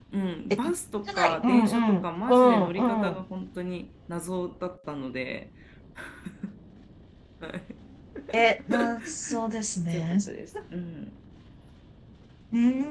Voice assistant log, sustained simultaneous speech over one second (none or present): present